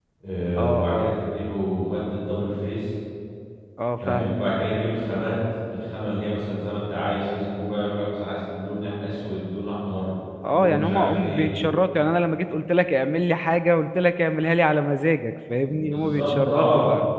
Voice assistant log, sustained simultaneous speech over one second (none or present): present